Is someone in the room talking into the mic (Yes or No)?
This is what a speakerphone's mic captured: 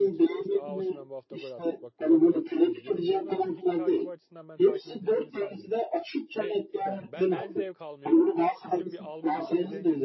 Yes